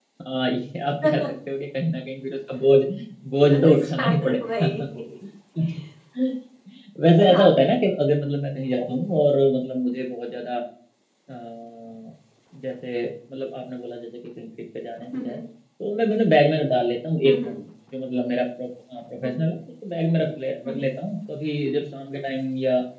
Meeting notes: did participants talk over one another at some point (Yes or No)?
Yes